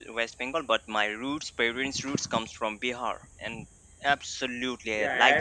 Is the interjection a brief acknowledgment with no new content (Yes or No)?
No